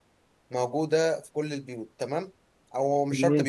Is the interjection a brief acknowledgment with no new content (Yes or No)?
Yes